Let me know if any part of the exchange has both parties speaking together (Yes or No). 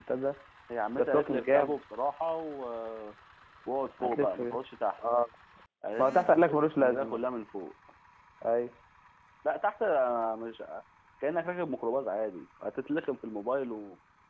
Yes